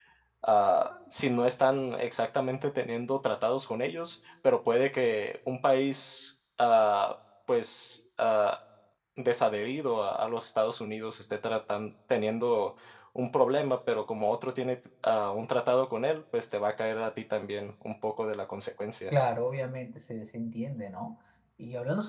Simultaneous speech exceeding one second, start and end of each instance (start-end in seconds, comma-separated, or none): none